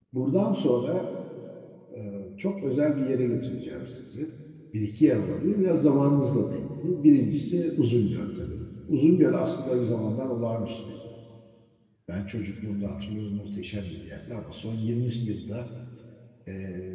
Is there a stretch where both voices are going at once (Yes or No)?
No